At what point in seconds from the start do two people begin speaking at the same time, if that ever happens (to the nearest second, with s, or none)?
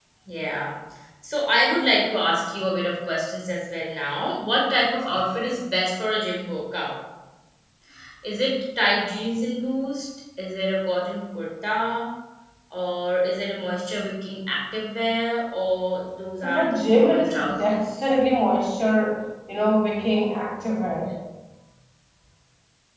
16 s